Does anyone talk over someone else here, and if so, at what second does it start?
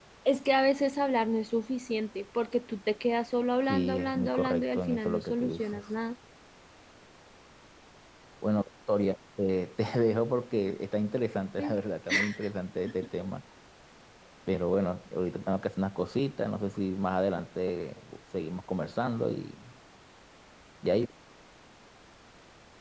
3.7 s

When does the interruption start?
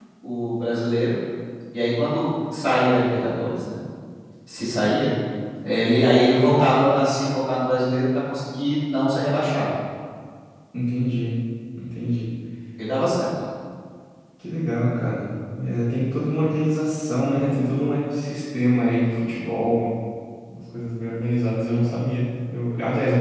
none

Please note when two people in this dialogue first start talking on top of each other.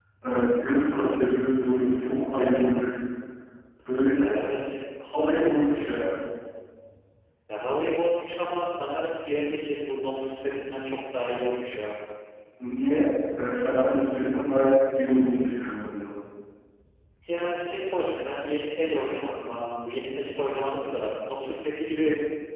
none

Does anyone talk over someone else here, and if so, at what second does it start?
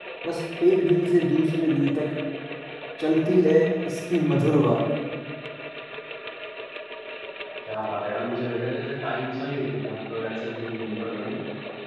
none

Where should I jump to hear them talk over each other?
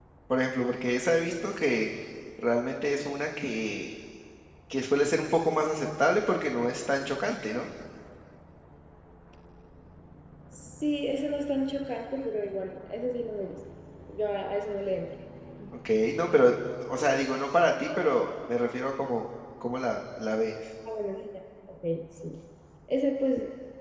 none

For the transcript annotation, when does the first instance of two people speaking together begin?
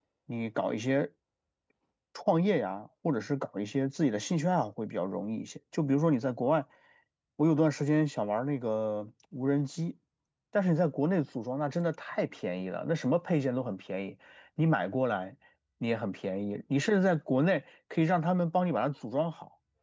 none

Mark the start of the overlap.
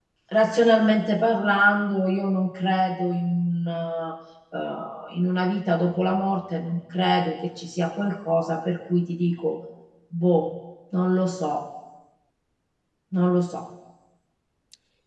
none

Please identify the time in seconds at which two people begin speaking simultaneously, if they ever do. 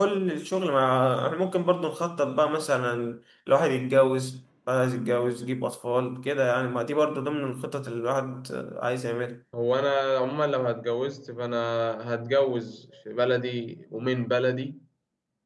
none

